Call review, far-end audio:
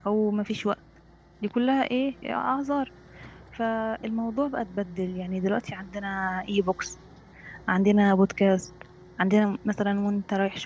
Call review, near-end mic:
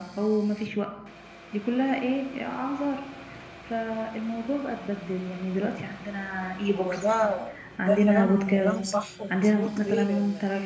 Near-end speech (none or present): present